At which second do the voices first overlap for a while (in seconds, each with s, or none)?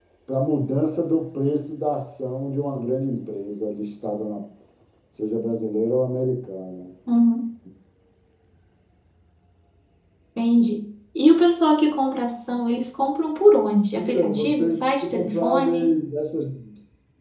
13.9 s